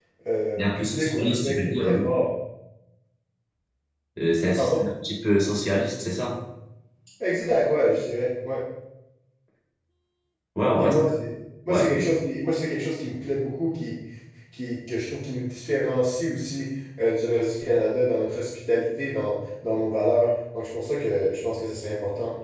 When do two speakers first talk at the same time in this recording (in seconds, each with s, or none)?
0.6 s